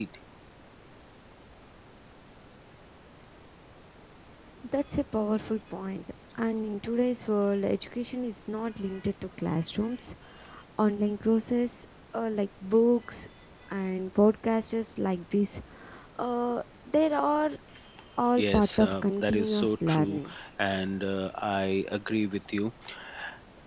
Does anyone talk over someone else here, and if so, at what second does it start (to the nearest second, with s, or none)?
18 s